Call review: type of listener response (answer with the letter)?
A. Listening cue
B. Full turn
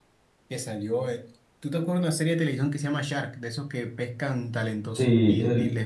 A